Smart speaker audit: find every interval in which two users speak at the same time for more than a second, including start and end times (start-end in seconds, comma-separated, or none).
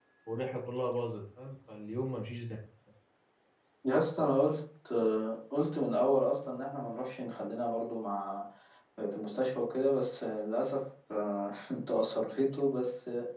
none